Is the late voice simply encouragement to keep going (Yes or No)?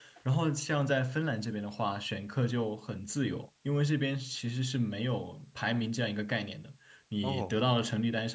Yes